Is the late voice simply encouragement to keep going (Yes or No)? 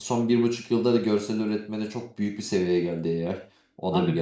No